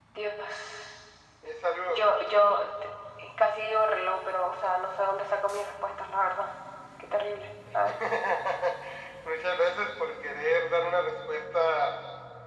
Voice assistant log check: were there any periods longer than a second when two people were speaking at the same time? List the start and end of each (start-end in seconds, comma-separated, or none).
none